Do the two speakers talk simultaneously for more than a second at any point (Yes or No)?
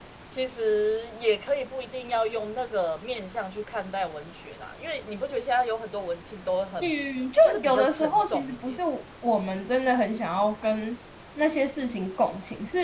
Yes